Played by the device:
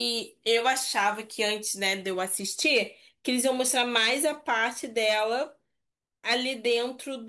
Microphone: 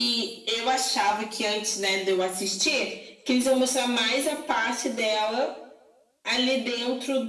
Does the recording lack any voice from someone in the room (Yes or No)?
Yes